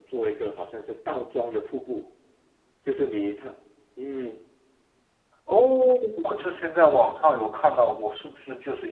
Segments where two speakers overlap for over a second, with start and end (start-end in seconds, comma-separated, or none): none